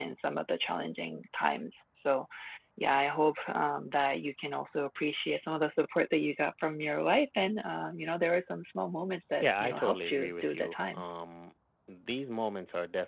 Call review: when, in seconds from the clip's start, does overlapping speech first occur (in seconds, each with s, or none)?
9.4 s